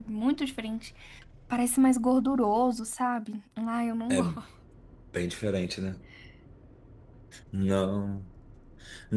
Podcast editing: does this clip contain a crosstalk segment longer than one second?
No

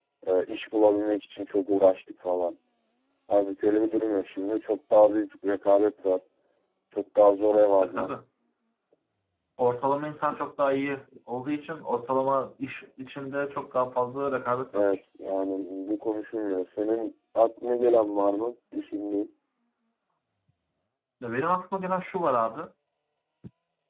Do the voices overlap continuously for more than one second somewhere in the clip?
No

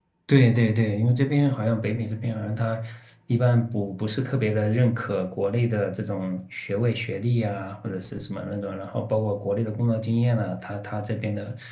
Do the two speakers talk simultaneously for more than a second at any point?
No

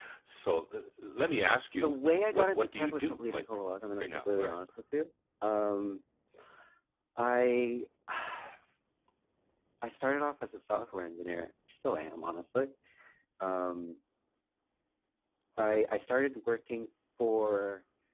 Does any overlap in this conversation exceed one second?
Yes, from 1.7 s

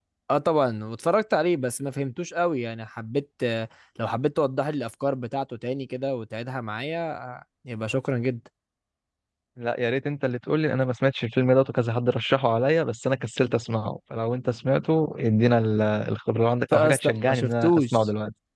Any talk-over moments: Yes, from 16.7 s

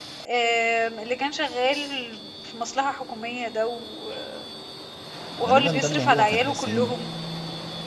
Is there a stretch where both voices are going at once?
Yes, from 5.4 s

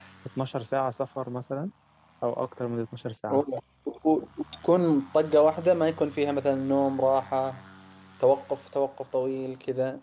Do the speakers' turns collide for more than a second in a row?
No

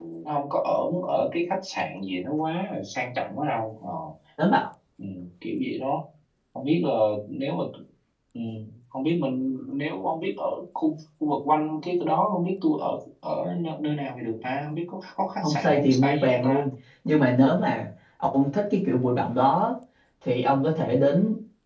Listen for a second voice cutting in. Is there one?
Yes, from 15.4 s

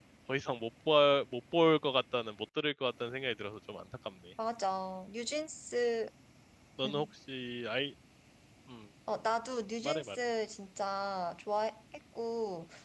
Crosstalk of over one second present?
No

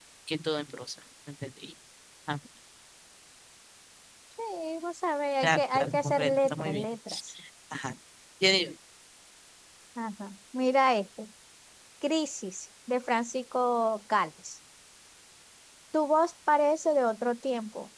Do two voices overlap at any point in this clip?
Yes, from 5.4 s

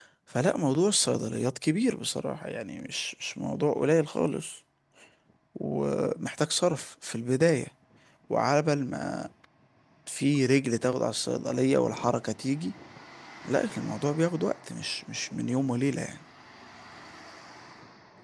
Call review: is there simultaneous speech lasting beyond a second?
No

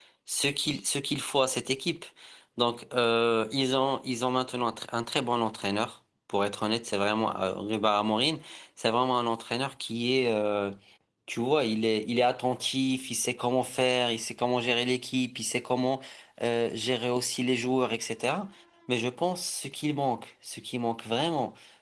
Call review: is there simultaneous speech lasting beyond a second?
No

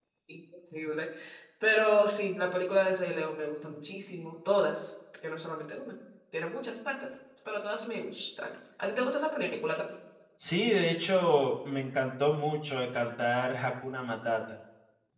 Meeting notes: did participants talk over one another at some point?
No

